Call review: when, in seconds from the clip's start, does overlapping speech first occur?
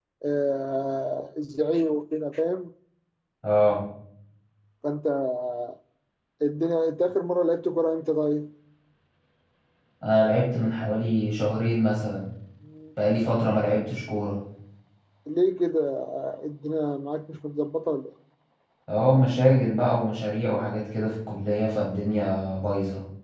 none

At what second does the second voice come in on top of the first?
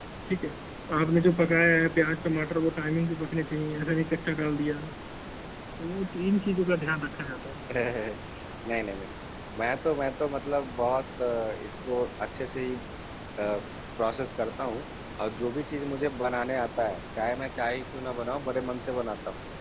none

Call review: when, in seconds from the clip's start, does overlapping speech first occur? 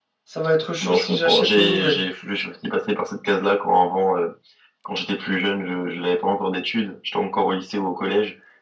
0.8 s

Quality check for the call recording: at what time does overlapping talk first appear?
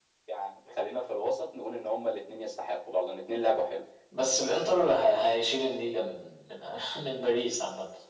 none

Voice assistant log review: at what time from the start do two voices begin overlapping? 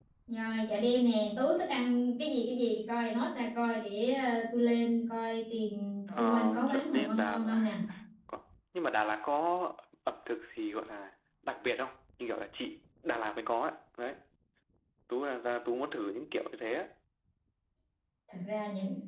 6.1 s

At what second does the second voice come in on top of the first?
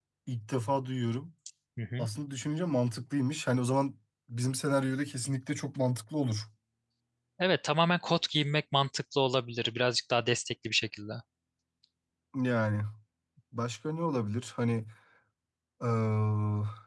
none

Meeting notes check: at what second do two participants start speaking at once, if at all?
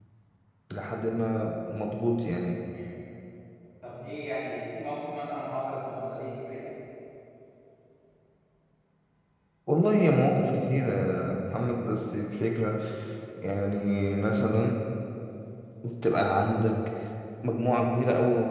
none

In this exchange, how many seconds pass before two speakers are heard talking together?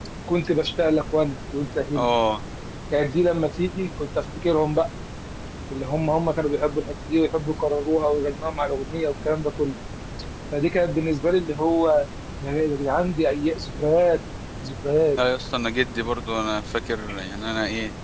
none

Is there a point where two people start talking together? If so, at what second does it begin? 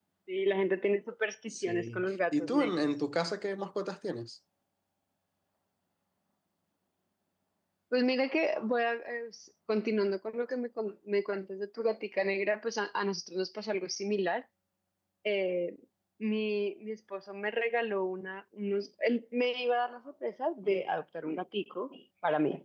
1.5 s

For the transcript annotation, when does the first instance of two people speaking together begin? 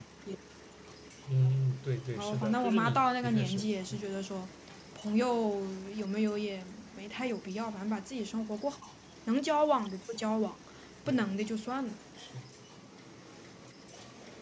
2.1 s

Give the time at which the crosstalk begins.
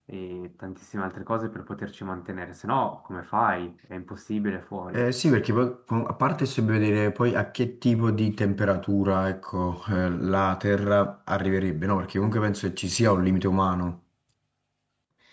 none

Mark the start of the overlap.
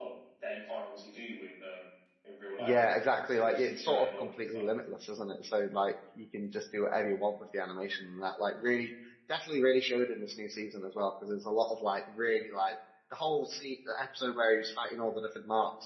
2.6 s

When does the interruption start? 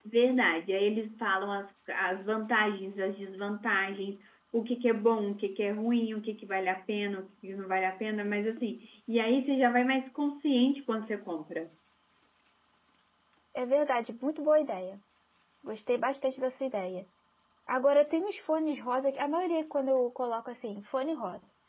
none

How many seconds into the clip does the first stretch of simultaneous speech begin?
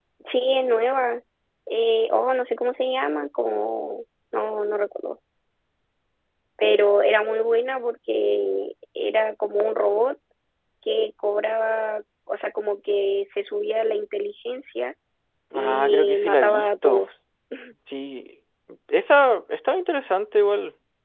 15.5 s

